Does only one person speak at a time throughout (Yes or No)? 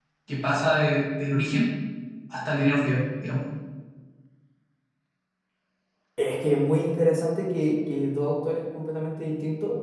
Yes